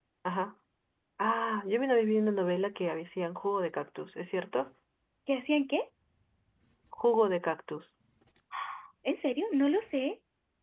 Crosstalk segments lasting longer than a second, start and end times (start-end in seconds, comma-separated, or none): none